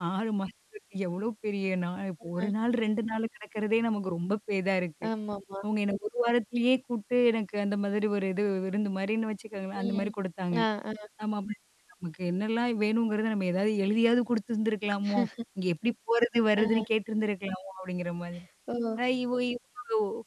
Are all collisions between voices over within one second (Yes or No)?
Yes